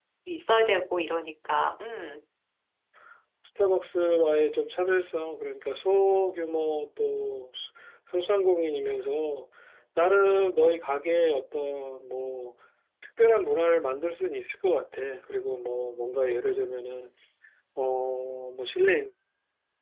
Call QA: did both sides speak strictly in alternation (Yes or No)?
Yes